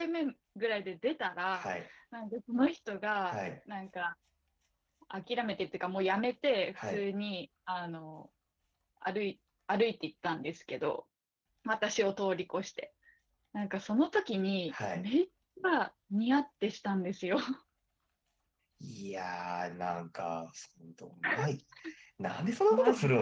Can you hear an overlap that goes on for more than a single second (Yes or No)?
No